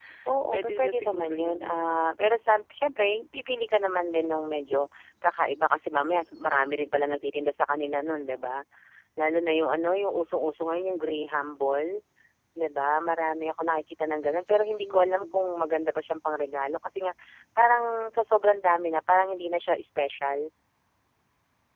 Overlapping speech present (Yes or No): Yes